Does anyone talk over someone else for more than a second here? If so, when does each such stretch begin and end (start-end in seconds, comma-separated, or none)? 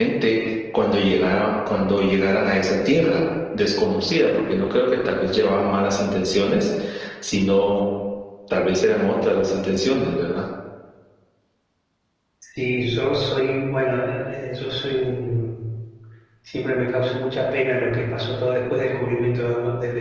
none